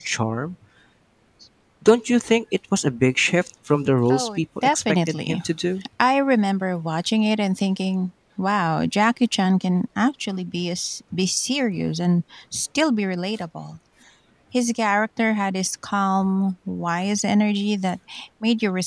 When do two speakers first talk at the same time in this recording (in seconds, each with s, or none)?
4.1 s